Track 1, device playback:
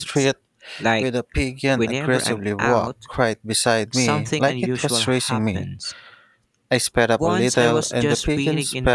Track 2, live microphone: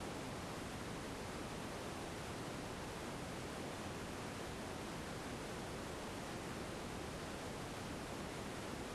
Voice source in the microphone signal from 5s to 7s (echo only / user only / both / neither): neither